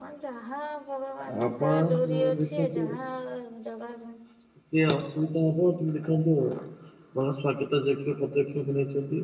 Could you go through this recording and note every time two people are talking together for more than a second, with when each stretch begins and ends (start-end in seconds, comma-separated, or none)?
1.5-2.8